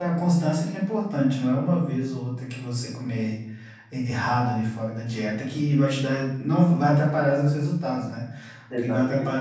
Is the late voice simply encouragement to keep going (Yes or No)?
Yes